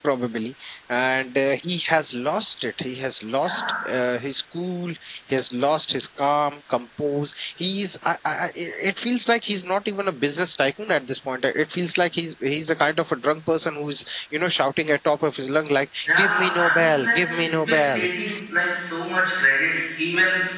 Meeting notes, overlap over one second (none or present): present